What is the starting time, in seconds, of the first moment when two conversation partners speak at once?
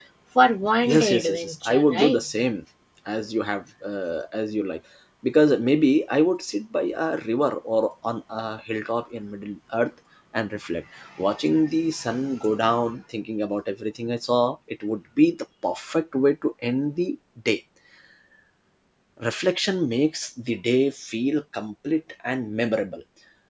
0.9 s

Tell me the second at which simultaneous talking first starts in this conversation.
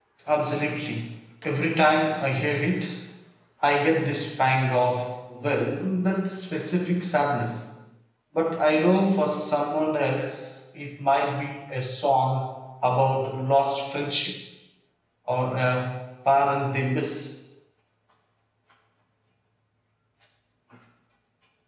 none

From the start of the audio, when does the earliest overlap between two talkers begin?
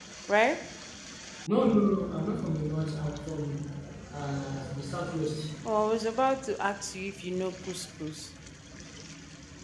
none

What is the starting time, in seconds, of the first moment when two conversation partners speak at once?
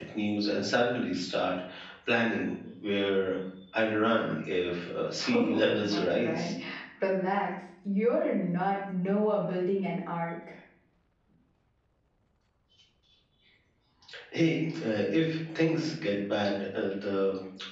5.3 s

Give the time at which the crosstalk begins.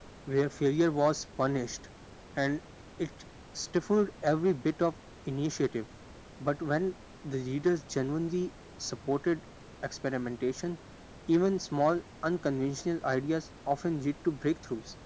none

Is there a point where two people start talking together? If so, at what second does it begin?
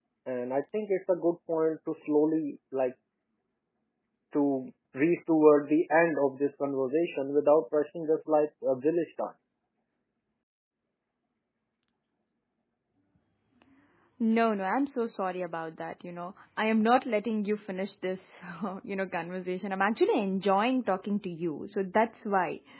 none

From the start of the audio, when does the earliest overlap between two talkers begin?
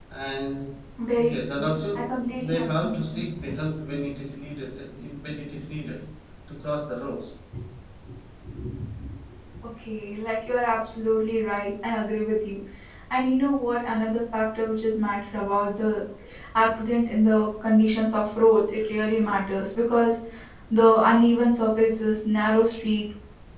1.2 s

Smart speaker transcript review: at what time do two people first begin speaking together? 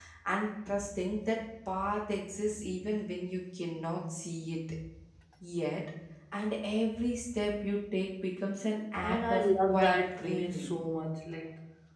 9.0 s

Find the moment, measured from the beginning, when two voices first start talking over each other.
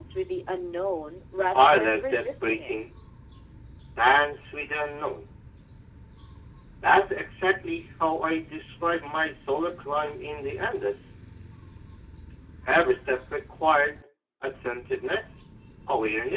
1.5 s

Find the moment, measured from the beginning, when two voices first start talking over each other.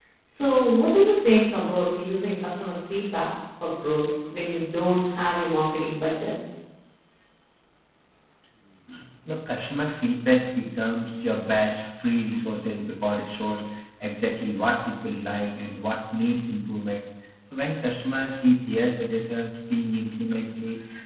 none

